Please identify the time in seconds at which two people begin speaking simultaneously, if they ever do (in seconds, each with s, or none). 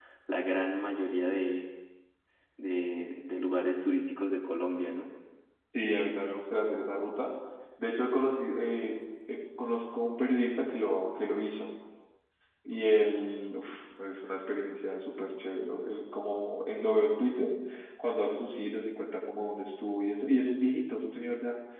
none